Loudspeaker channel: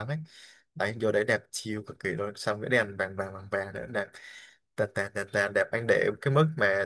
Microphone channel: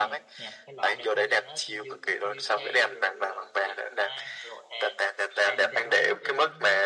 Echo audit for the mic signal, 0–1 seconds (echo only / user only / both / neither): both